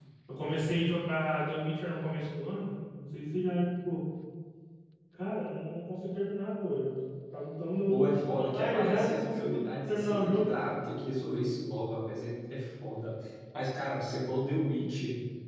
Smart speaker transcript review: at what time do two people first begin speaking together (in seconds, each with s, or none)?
7.9 s